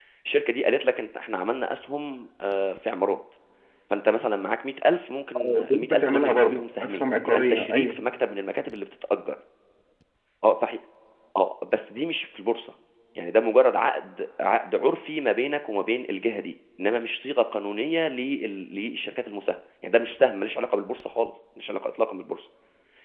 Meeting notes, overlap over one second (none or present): present